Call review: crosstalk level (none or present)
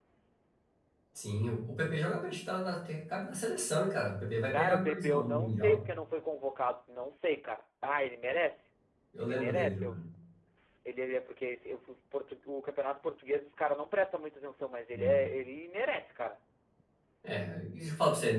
present